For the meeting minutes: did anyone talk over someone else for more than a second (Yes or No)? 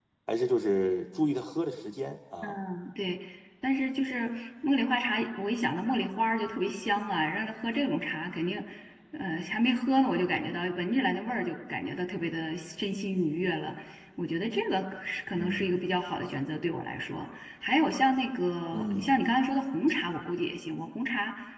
No